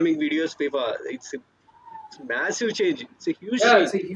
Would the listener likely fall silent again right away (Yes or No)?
No